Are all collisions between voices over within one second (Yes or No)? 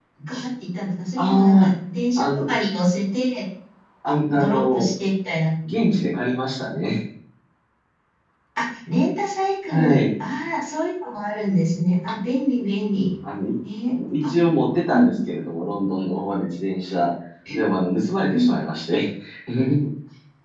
Yes